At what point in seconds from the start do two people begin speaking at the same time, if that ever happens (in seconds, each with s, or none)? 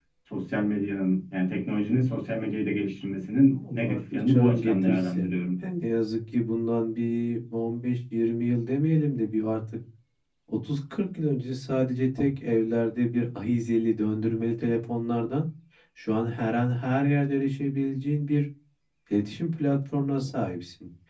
3.6 s